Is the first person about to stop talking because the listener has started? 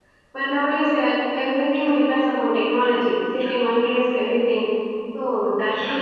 Yes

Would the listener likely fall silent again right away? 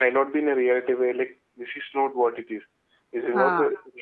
Yes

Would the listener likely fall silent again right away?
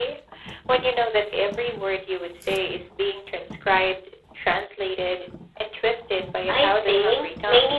No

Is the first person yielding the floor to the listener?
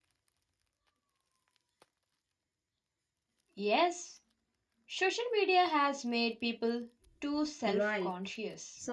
Yes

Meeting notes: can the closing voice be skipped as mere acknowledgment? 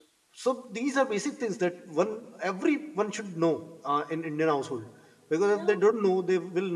Yes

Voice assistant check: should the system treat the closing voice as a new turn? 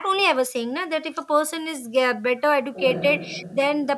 No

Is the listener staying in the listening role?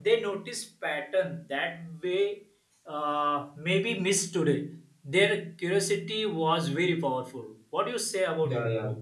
No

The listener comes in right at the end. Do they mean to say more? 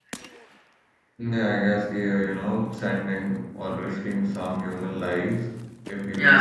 No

